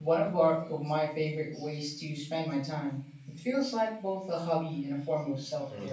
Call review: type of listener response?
taking over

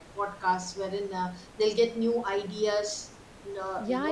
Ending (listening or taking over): taking over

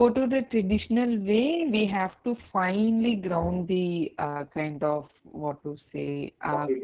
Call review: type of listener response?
listening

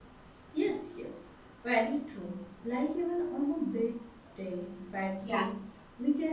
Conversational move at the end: listening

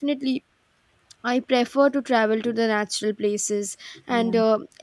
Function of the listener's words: listening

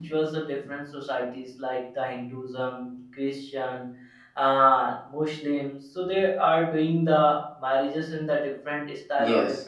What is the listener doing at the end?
taking over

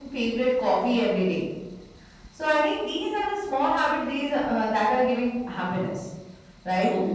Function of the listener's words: listening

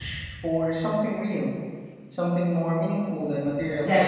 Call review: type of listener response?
taking over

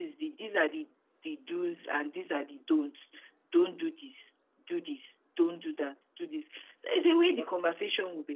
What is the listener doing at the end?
listening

